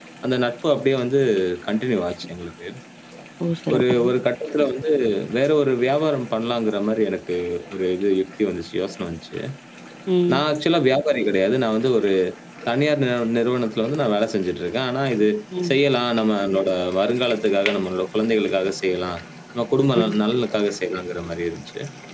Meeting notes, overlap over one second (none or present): none